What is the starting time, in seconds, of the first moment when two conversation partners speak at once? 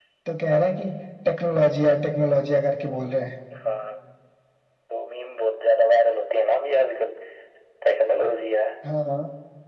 none

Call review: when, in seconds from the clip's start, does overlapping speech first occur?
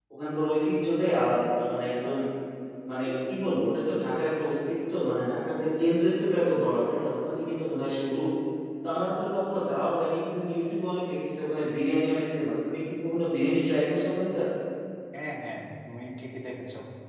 none

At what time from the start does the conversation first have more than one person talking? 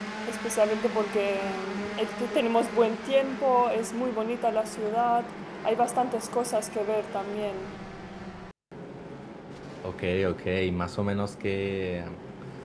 none

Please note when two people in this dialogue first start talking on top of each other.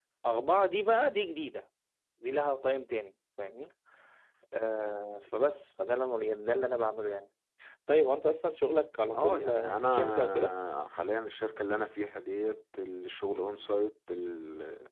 9.1 s

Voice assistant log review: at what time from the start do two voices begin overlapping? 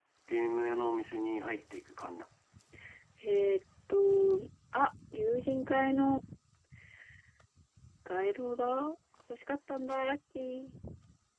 none

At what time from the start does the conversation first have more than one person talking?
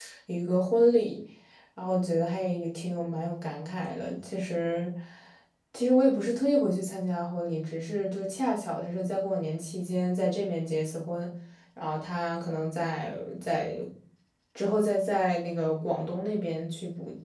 none

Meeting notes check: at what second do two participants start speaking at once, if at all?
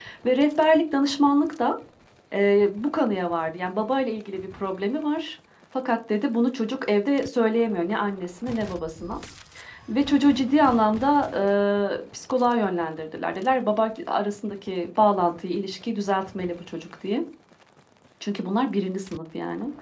none

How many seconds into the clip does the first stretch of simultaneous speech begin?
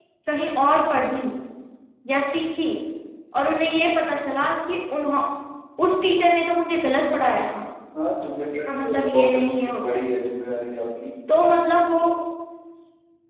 8.5 s

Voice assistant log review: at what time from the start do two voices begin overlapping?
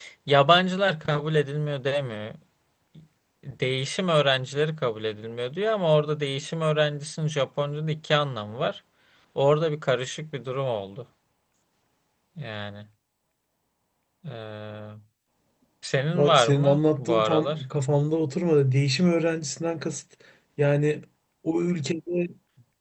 16.1 s

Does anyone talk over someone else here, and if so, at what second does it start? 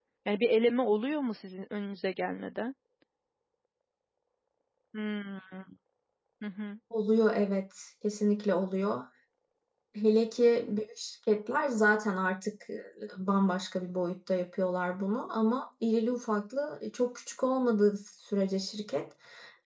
none

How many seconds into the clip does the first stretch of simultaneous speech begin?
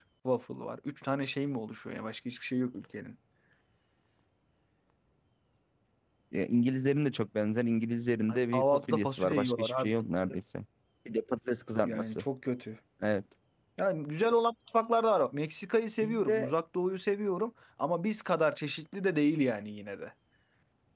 8.3 s

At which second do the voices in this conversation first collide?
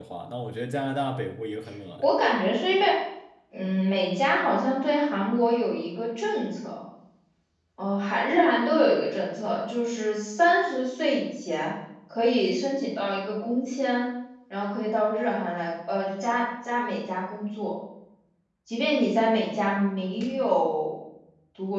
none

